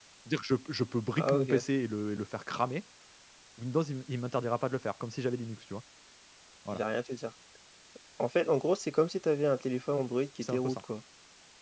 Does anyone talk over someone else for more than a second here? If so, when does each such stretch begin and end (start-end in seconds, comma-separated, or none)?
none